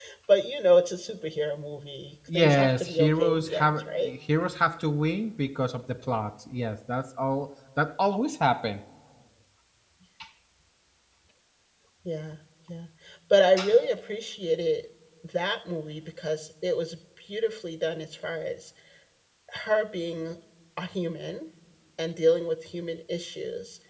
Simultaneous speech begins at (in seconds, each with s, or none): 2.3 s